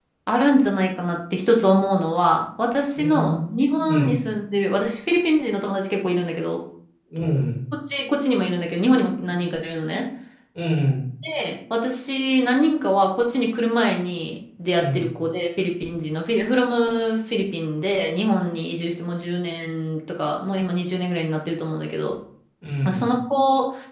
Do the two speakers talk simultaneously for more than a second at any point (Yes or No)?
Yes